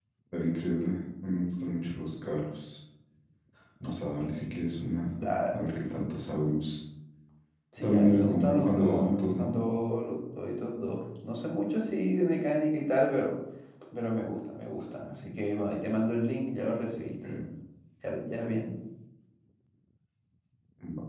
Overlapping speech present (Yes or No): Yes